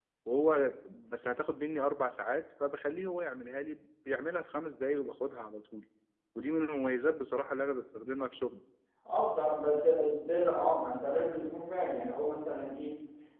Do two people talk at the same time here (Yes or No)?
No